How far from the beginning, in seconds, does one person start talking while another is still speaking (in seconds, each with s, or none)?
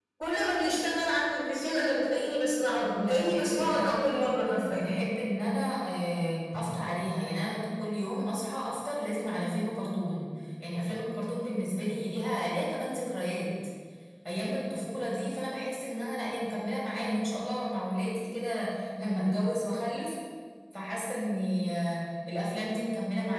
3.0 s